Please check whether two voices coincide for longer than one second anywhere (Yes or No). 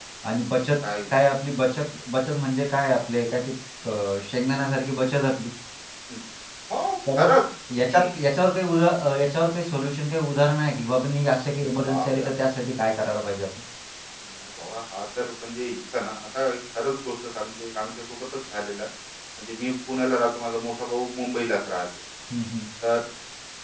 No